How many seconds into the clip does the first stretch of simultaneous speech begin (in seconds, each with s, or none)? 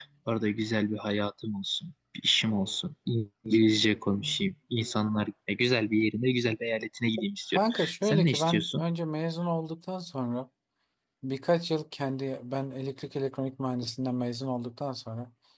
7.5 s